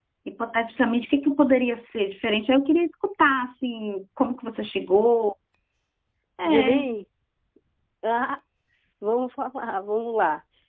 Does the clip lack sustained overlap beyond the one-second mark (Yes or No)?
Yes